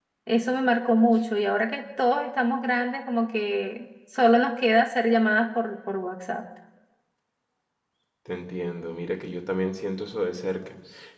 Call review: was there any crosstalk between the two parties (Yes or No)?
No